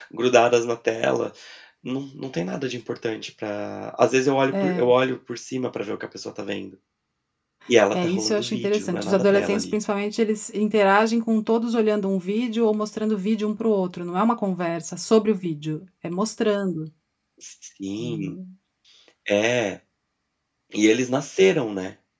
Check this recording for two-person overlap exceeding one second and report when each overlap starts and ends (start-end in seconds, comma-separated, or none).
7.9-9.7